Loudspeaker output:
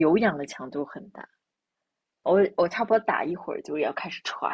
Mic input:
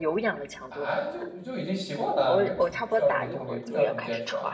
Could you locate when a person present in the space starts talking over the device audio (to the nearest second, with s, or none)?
1 s